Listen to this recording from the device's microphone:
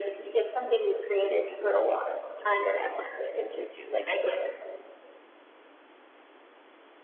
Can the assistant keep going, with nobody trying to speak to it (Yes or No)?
Yes